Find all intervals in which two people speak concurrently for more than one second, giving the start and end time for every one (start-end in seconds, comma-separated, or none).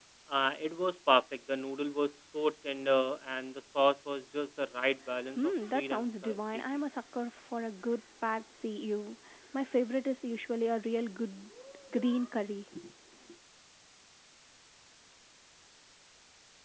5.4-6.6